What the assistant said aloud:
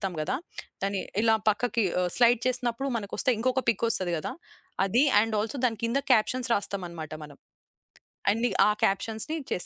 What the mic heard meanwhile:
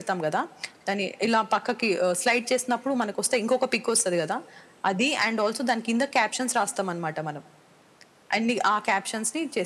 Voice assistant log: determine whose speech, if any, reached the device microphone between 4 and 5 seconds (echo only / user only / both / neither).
echo only